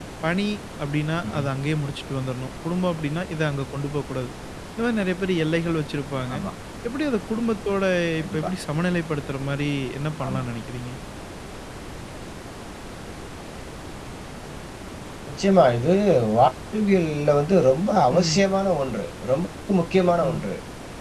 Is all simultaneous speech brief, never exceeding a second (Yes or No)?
Yes